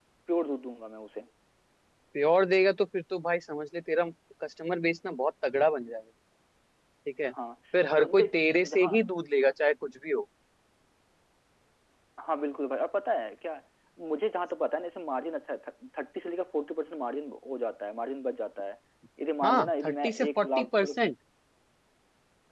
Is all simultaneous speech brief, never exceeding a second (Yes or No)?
No